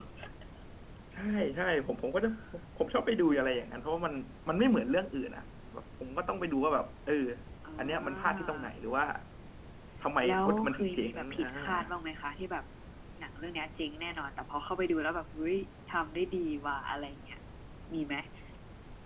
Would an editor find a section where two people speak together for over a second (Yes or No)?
Yes